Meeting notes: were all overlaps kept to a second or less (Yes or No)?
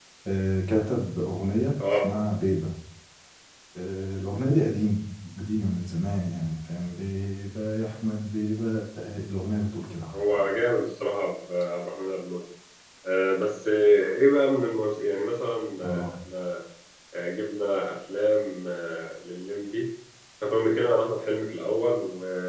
Yes